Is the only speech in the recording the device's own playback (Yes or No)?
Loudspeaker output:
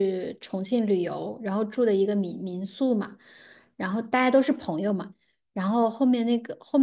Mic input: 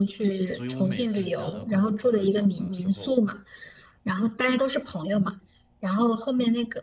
No